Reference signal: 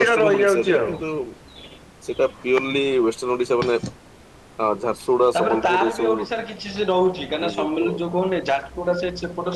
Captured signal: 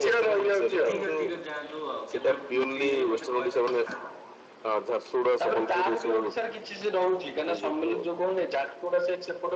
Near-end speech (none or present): present